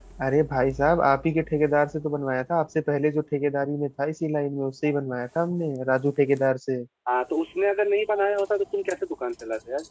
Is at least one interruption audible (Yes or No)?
No